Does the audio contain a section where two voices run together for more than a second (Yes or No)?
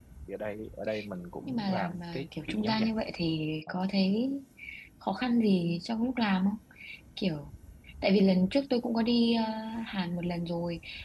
Yes